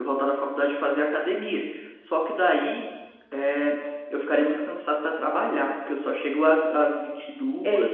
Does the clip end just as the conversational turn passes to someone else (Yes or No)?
Yes